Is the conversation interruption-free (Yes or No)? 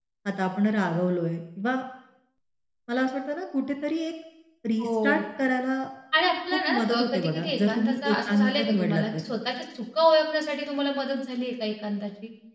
No